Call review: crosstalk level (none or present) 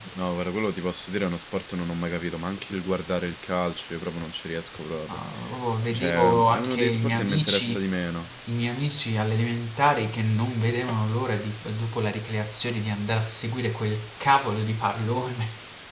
present